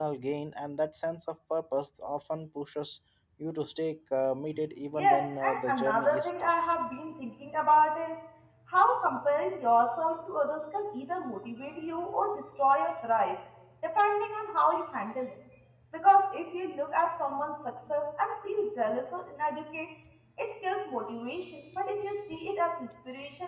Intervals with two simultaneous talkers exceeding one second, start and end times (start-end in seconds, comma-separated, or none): 4.9-6.5